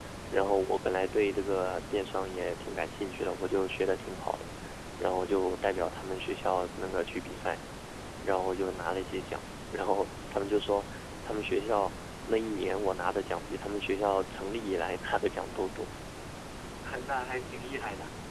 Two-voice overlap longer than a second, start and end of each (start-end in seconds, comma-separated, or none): none